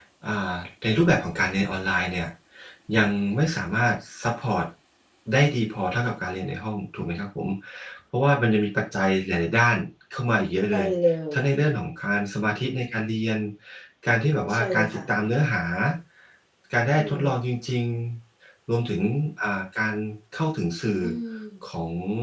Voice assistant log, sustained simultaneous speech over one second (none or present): none